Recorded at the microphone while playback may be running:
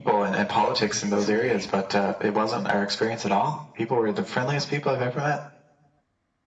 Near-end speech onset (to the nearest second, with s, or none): 1 s